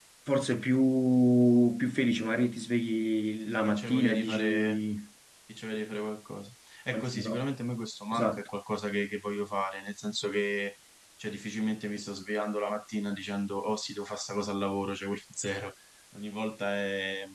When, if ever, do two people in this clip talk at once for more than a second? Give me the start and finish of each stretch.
3.4-4.8

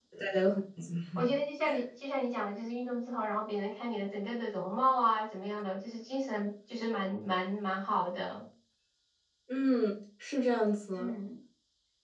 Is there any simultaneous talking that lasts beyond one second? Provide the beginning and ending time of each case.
none

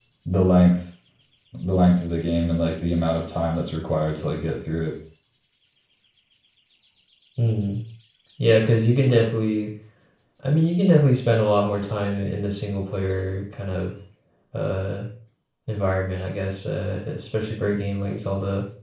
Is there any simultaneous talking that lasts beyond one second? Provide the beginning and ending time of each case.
none

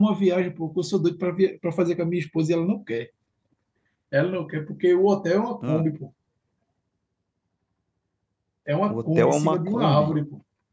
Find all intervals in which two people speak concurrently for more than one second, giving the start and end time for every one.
8.9-10.1

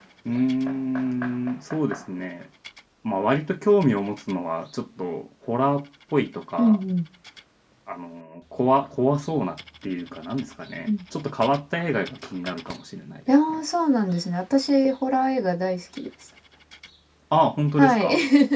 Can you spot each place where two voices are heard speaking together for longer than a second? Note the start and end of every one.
none

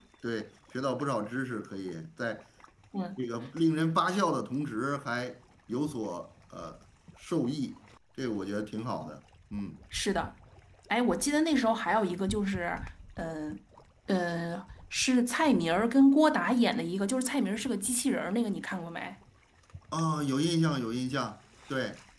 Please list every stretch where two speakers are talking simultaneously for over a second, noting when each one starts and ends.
none

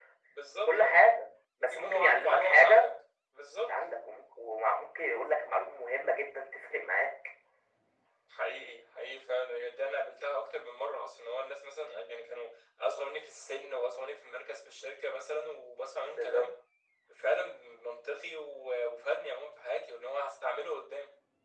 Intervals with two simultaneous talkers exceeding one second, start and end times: 1.6-2.8

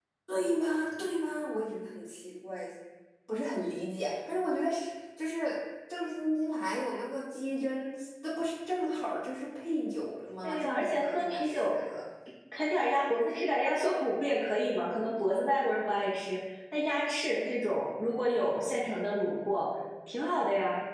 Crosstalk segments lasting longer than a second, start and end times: 10.4-11.8

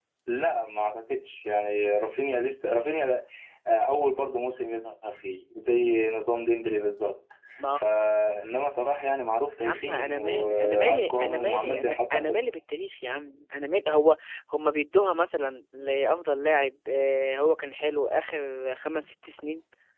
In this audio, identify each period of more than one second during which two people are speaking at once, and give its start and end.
9.6-12.4

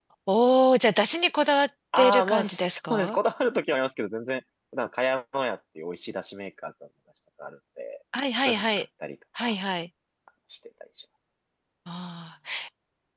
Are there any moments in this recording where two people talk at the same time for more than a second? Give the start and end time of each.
2.0-3.2

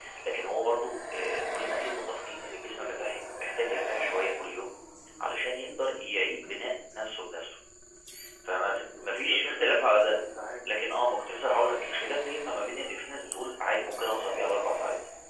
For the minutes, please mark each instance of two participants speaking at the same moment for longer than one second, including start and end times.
8.7-10.2

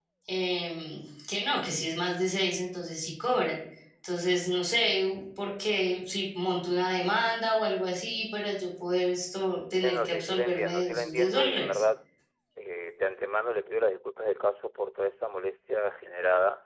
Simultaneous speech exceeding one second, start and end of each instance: 9.8-11.8

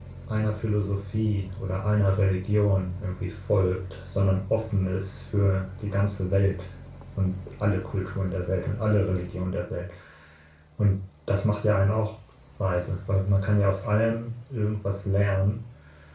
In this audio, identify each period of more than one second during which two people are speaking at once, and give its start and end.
none

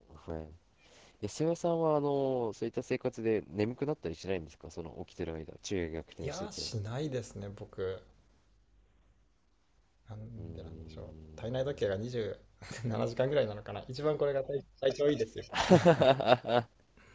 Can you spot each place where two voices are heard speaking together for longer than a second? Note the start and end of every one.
10.4-11.9

